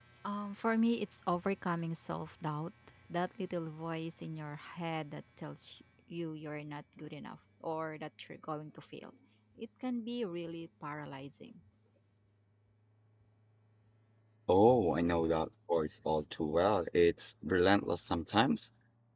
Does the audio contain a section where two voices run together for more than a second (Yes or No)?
No